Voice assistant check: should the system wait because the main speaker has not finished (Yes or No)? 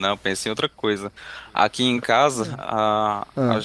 Yes